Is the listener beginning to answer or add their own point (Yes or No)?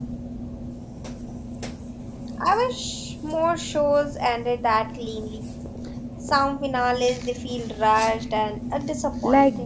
Yes